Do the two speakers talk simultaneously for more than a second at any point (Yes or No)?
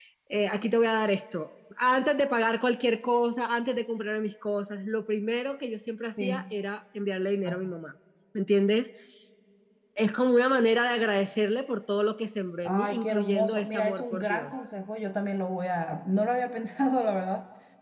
Yes